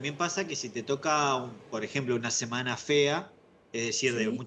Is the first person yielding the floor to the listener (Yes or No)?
No